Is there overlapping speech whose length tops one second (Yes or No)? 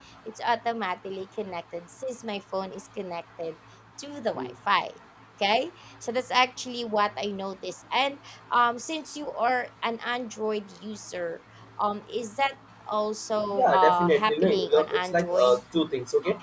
Yes